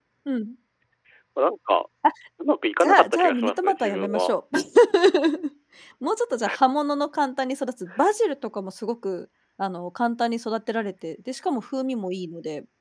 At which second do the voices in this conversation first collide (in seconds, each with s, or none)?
2.8 s